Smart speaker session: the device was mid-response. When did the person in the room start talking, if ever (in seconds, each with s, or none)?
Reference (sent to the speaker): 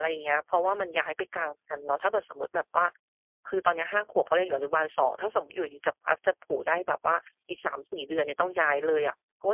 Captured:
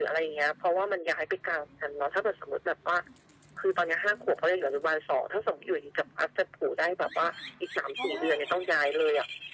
7.2 s